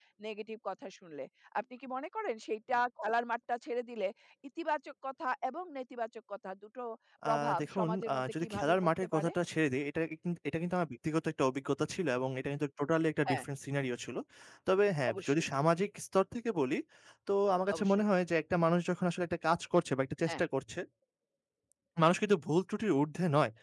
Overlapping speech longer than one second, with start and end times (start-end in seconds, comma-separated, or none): 7.2-9.3